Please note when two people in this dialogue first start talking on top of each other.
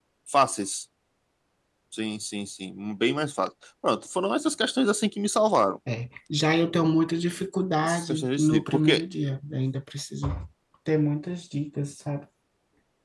8 s

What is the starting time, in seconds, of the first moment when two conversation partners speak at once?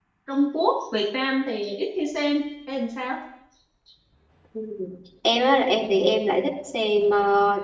none

